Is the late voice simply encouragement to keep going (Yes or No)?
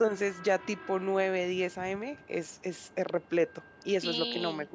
No